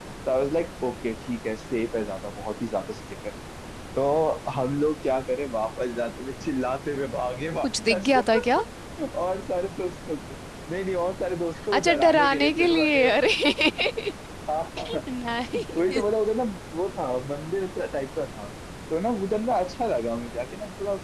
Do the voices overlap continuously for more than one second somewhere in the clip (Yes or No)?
Yes